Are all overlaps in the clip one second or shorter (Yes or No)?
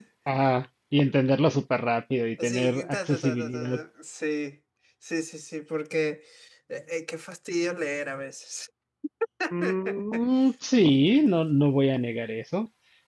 No